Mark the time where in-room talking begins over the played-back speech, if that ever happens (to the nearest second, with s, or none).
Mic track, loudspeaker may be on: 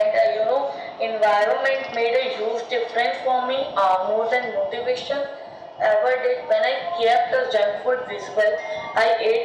none